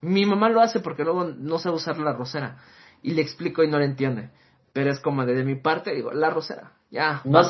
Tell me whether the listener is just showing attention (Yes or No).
No